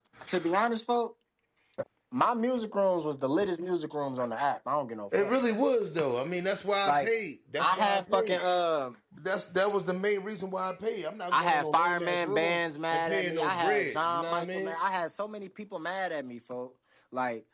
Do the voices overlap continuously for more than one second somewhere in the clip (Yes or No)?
Yes